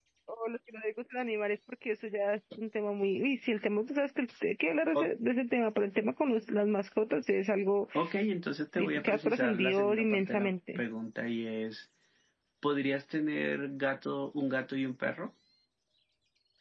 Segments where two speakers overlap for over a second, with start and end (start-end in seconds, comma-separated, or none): 8.8-10.8